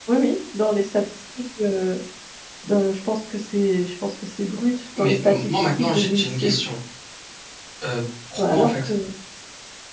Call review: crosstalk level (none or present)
present